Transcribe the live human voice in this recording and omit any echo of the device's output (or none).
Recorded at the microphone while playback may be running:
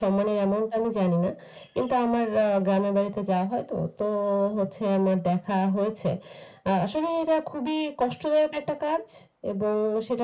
none